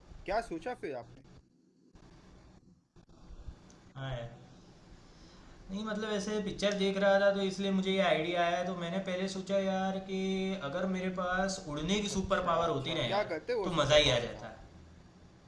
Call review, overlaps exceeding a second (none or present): present